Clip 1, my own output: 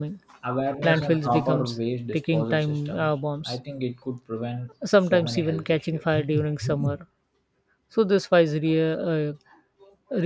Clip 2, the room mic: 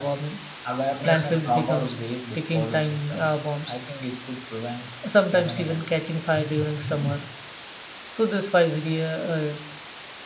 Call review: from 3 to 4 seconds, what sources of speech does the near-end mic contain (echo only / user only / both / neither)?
echo only